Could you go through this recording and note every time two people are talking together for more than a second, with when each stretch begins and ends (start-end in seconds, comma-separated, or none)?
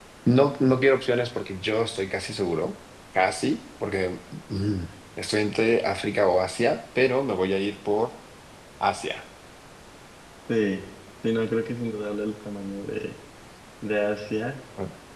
none